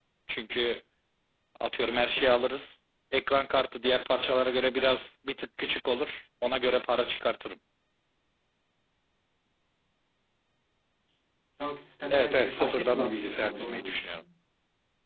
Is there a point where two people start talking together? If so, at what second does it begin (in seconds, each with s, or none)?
12.1 s